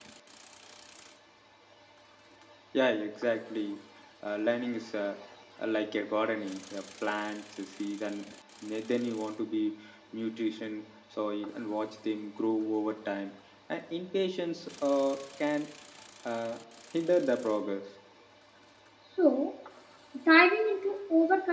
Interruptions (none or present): none